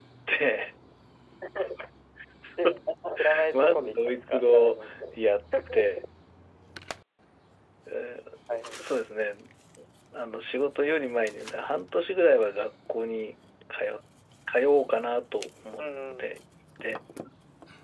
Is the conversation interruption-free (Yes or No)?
No